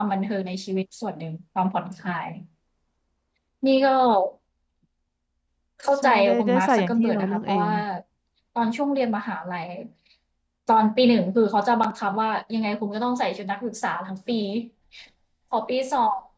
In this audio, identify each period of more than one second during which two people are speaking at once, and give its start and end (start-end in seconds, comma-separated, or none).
6.0-7.7